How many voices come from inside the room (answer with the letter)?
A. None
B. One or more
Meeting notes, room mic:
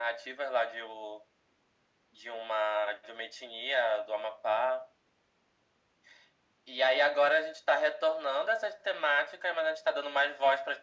A